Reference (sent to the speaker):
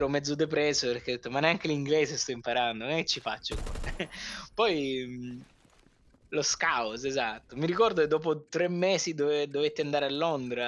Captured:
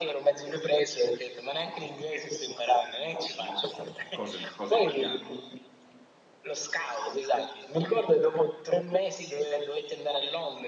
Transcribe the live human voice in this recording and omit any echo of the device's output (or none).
Mh, cose cose italiane?